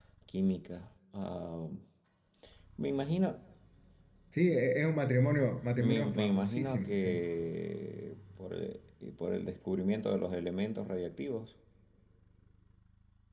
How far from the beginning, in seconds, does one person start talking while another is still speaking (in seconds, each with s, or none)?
5.8 s